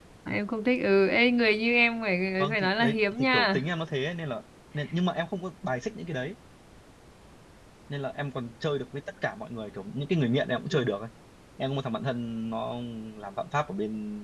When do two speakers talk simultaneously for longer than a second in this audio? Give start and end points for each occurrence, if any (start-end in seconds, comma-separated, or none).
2.4-3.6